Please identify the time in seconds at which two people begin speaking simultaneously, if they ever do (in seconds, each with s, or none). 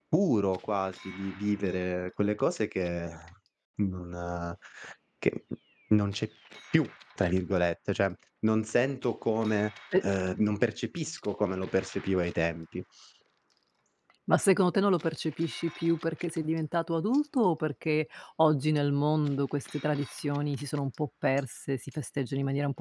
none